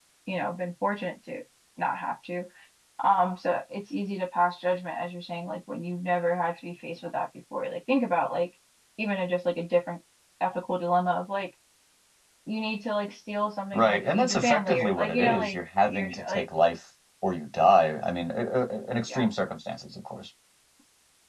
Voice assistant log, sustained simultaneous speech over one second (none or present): present